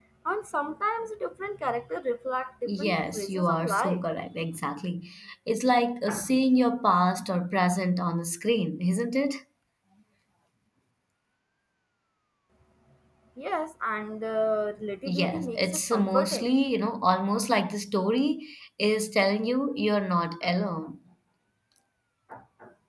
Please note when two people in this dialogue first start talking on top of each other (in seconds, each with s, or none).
2.7 s